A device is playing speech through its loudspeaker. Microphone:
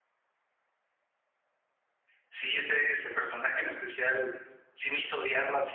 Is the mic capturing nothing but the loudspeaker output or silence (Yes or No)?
No